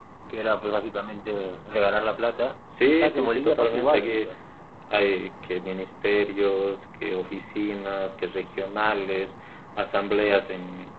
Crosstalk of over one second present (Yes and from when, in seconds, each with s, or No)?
Yes, from 3.0 s